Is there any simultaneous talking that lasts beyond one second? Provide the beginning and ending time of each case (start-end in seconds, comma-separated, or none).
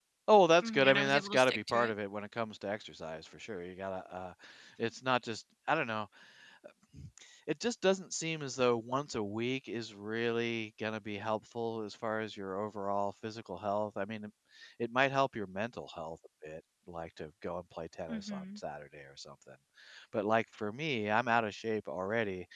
0.6-1.9